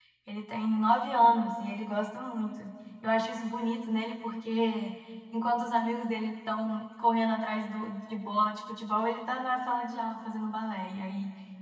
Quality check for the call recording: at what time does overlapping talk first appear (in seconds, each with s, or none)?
none